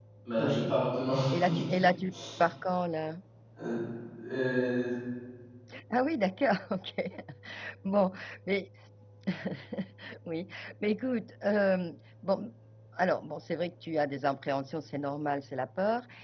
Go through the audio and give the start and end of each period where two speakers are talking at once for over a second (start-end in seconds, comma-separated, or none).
none